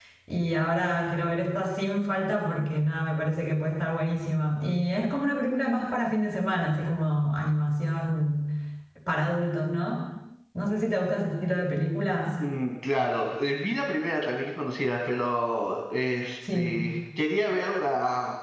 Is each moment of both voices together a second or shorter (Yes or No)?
Yes